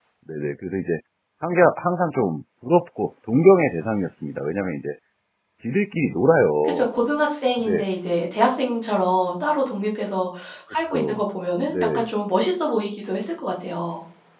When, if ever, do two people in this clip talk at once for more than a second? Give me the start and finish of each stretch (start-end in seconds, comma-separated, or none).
none